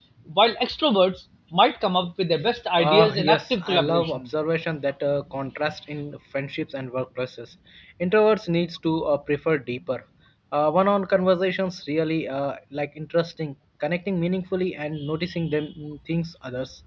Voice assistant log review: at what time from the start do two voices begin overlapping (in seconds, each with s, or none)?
2.8 s